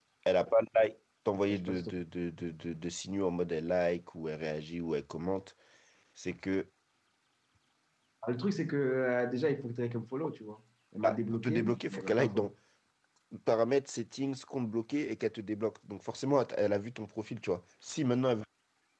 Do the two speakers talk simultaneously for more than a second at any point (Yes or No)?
Yes